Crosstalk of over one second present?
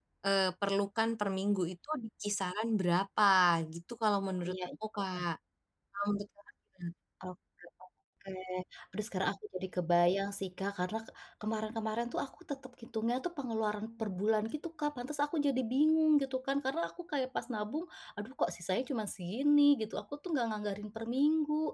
No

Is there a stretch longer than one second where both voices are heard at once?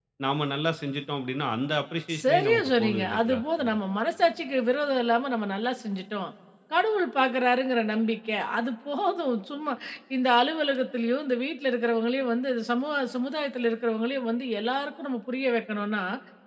Yes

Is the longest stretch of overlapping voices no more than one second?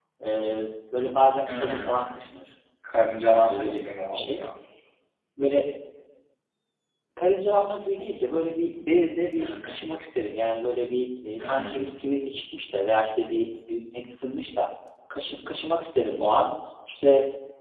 No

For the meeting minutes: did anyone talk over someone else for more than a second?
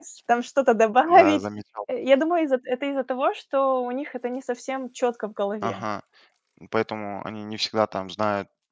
No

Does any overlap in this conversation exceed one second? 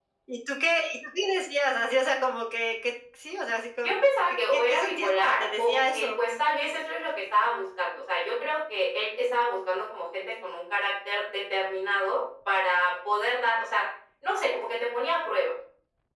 Yes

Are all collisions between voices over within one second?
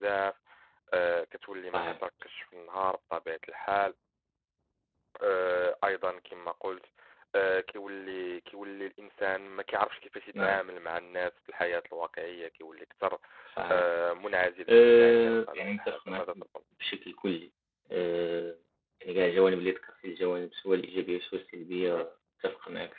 No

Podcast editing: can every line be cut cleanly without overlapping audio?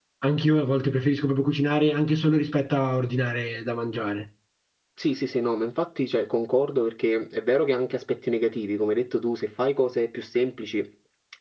Yes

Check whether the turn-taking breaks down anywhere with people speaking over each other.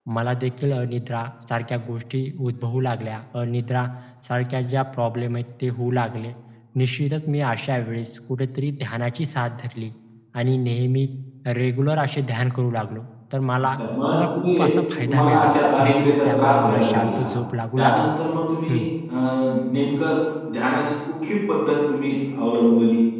Yes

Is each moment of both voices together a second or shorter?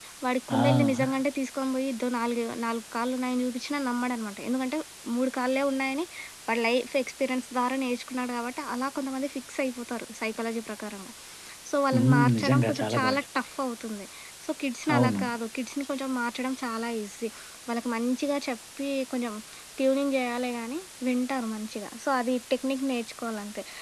No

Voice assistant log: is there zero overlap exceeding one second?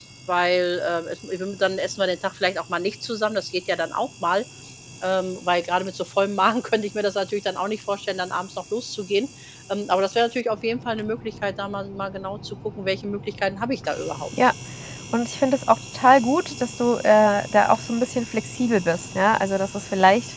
Yes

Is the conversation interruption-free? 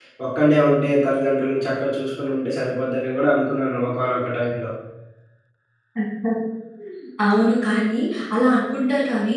Yes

